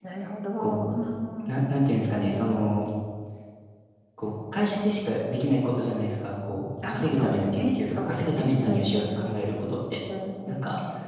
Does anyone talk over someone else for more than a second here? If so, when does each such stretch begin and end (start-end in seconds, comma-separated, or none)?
6.9-9.4